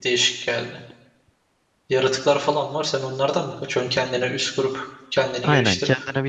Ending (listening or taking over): taking over